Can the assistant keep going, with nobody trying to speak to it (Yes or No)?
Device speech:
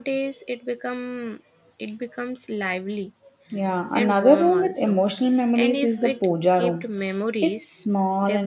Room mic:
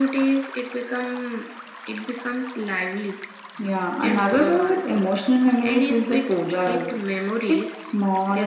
Yes